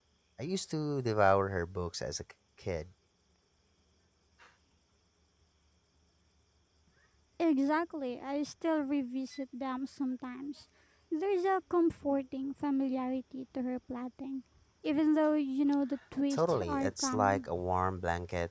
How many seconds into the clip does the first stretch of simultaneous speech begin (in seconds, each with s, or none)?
16.3 s